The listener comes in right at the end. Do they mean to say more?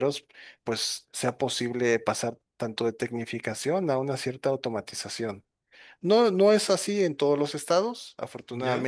No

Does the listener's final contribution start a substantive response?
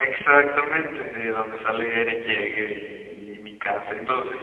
Yes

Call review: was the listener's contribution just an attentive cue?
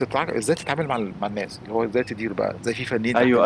No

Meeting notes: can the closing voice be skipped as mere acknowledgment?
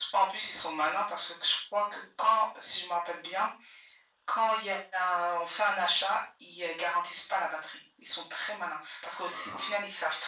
Yes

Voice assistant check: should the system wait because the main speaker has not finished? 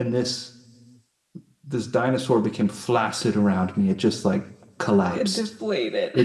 Yes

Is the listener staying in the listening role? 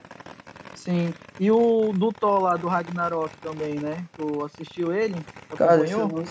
No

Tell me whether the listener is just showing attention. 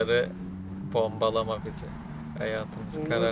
No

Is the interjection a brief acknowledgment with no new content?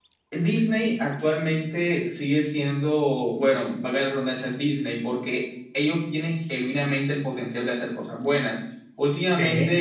Yes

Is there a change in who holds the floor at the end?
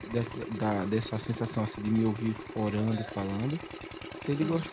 No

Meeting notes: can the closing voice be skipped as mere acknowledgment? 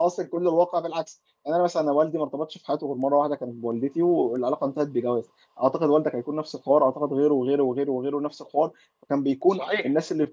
Yes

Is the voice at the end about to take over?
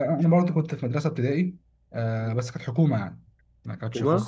No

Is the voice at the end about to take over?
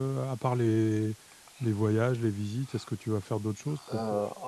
Yes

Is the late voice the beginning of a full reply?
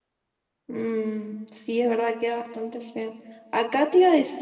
No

